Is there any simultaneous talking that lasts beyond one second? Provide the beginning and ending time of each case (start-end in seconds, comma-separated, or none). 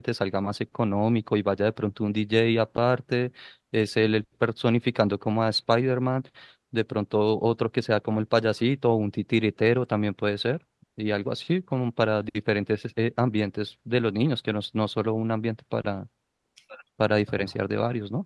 none